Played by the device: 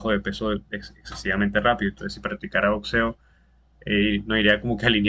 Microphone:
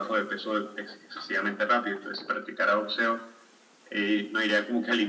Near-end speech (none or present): none